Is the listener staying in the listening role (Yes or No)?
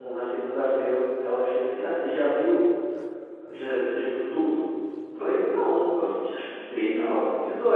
Yes